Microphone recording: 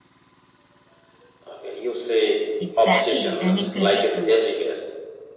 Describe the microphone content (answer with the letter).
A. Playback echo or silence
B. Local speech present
B